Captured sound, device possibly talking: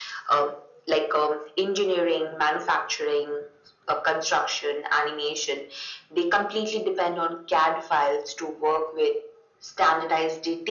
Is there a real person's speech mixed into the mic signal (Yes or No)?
No